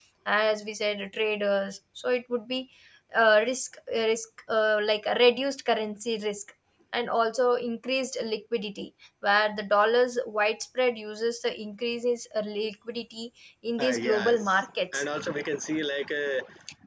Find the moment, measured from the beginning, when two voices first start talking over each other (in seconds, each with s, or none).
13.8 s